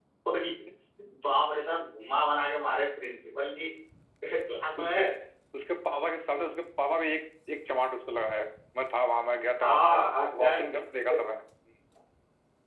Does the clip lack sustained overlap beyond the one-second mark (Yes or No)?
Yes